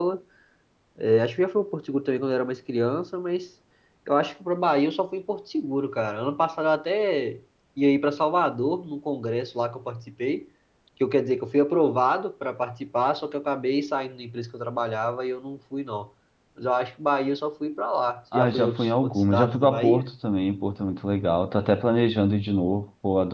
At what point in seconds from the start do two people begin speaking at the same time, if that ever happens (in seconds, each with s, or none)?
18.3 s